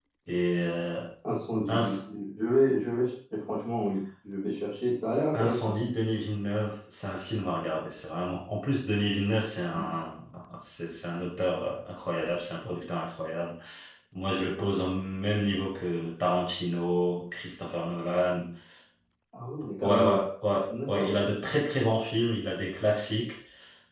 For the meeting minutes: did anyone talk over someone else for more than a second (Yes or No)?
No